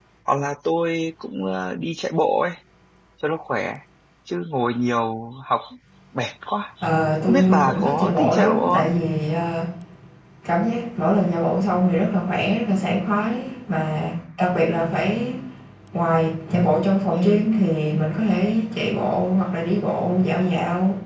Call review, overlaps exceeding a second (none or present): present